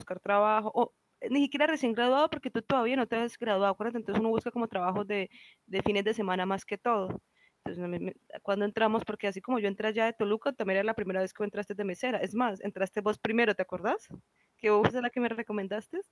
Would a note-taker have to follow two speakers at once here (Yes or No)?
No